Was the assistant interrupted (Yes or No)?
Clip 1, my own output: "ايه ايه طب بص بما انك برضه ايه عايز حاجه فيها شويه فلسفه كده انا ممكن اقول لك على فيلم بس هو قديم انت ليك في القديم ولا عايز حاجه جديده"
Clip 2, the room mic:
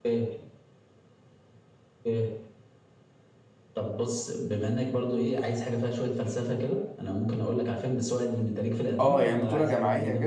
Yes